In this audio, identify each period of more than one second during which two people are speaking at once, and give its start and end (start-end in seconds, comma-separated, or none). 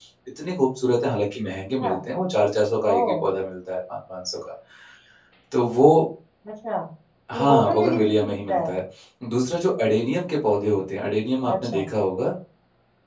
7.3-8.7